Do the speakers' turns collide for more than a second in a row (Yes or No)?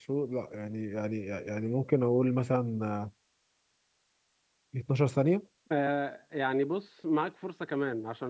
No